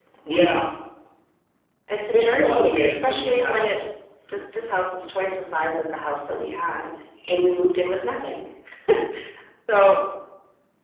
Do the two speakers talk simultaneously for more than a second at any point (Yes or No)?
Yes